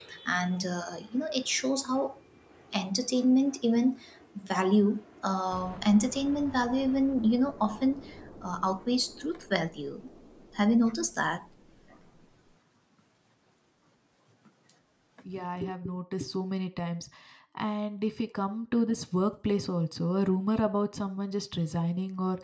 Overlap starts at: none

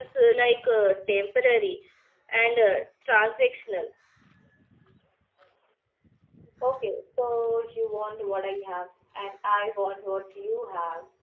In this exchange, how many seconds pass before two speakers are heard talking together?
none

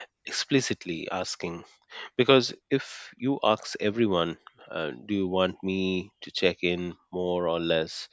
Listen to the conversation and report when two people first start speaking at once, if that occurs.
none

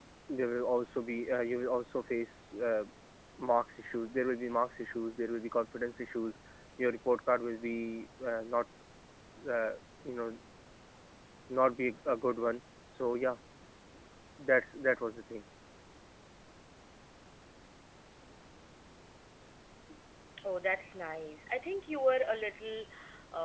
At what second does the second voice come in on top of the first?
none

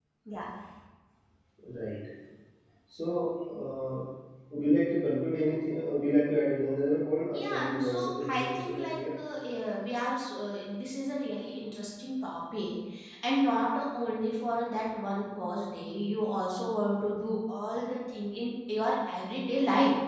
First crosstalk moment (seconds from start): 7.3 s

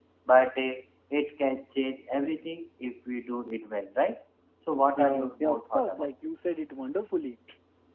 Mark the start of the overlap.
5.0 s

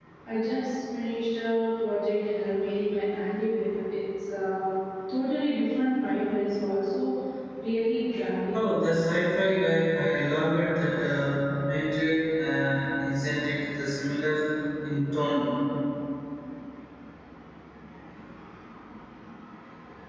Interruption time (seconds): none

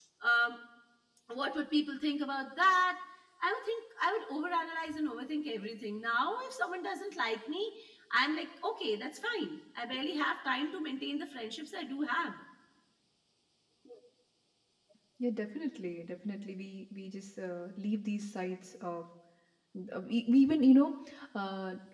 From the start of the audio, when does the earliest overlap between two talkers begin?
none

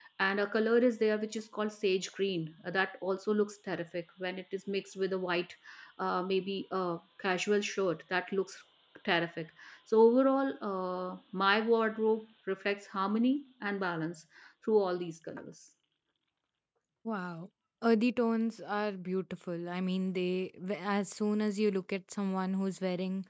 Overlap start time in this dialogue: none

